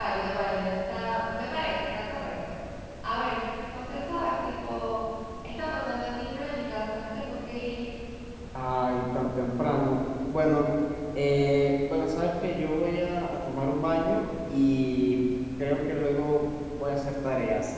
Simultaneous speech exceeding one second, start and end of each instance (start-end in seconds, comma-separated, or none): none